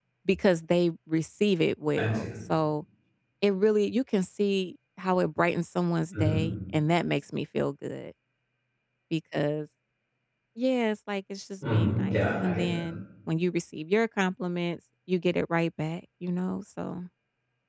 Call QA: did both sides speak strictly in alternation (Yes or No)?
No